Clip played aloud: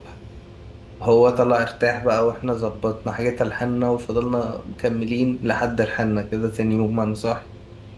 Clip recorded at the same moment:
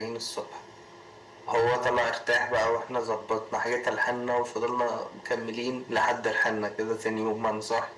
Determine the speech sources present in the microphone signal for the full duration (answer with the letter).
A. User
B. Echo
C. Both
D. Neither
B